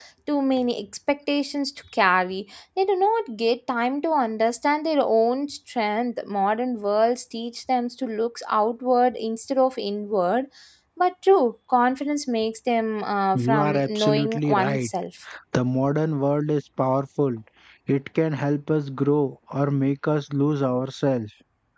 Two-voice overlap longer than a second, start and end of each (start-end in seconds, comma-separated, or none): 13.3-14.9